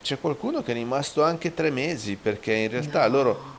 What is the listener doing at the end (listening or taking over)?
listening